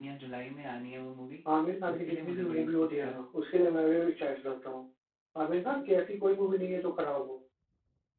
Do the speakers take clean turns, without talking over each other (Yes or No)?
No